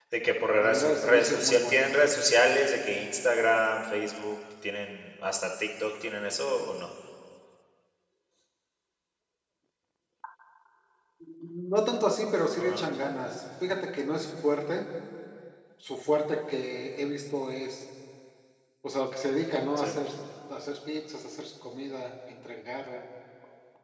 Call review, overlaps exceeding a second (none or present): present